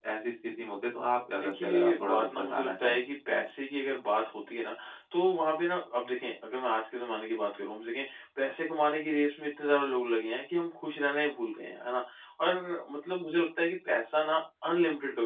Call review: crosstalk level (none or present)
present